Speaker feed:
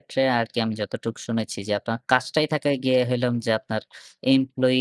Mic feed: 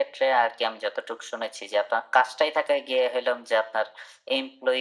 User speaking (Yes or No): No